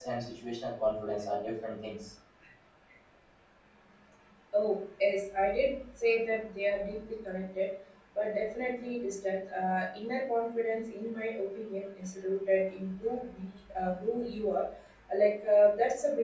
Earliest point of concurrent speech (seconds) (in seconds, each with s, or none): none